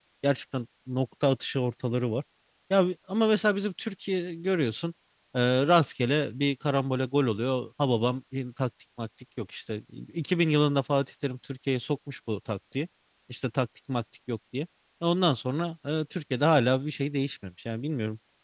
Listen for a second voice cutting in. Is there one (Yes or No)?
No